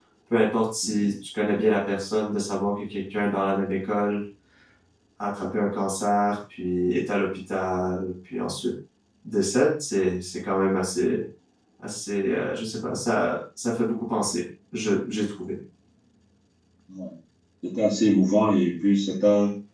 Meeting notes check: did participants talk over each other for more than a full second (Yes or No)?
No